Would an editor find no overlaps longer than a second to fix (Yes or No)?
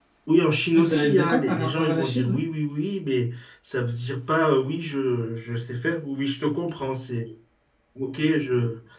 No